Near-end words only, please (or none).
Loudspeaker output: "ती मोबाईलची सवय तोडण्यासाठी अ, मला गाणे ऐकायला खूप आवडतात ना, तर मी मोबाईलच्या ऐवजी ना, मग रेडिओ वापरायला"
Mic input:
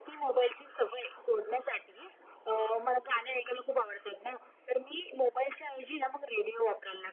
none